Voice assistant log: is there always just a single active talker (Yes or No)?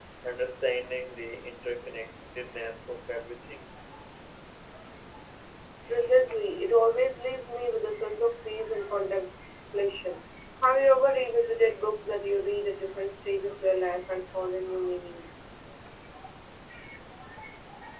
Yes